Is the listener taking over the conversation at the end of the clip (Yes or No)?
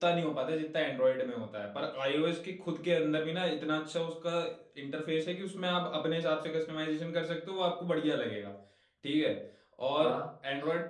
No